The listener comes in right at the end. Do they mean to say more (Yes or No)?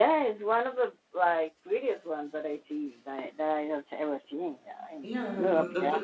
Yes